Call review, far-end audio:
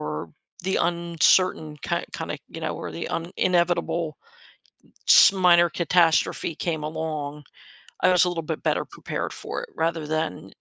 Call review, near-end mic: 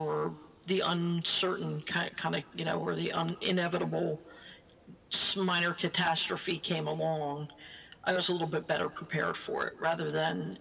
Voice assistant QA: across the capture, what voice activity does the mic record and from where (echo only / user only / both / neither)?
echo only